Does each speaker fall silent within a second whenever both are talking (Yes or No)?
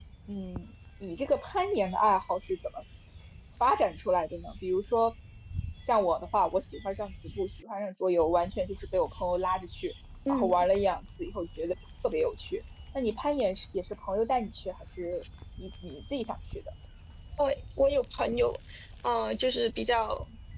Yes